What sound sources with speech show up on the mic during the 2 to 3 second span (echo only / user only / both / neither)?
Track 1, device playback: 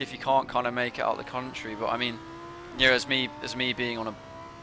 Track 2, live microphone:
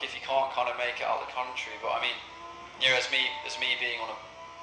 echo only